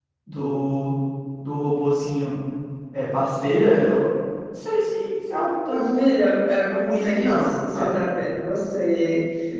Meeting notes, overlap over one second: present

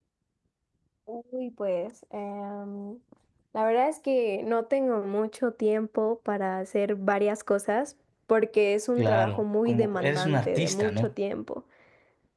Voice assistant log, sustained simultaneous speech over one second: present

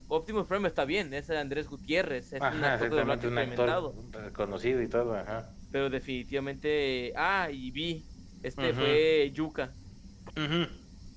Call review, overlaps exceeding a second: present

